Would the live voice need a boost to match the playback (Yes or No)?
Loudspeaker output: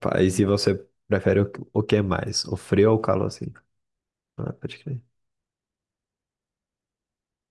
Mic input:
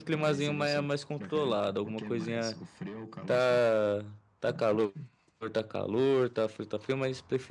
No